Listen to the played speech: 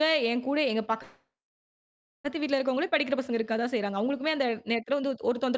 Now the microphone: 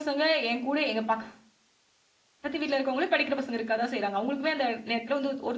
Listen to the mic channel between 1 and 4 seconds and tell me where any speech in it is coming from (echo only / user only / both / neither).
echo only